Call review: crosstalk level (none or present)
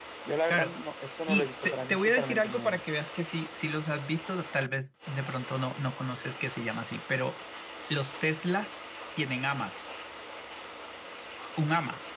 present